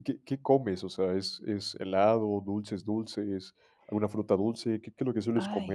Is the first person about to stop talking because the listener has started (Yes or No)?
Yes